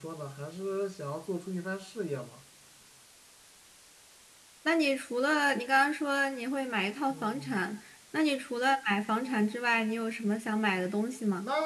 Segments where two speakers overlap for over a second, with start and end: none

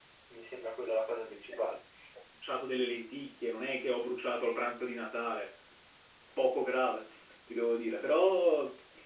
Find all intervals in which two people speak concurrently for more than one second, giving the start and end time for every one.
none

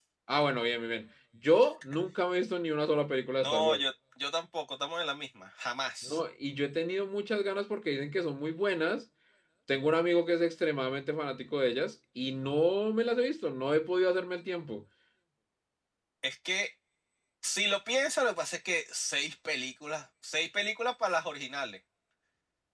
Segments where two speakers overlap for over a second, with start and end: none

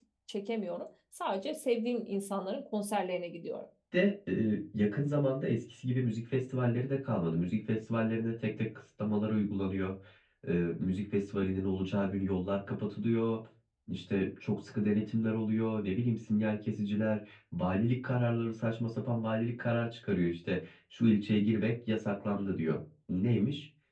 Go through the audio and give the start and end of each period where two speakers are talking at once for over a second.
none

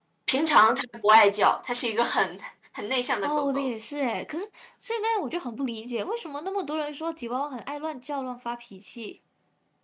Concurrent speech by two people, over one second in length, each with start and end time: none

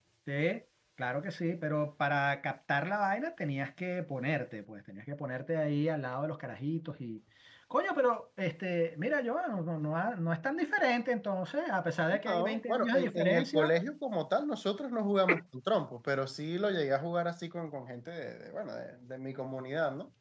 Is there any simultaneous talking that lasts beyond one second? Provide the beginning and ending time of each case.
12.3-13.8

